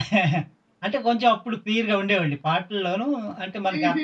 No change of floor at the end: Yes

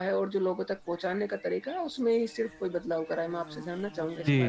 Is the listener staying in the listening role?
No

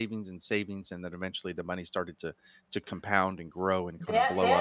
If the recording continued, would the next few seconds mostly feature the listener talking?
Yes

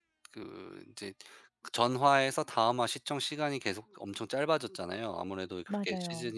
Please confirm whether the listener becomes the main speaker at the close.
No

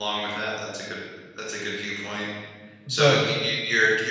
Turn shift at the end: No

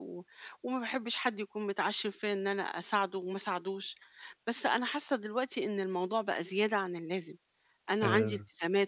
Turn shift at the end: No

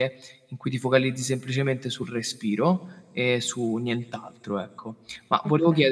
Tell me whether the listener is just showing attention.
Yes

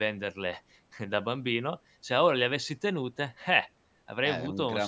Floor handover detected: Yes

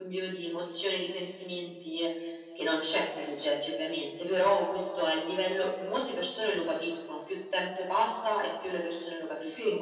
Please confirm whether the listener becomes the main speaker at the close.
Yes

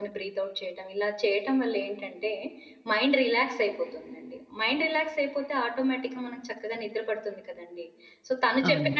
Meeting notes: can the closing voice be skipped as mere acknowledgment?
Yes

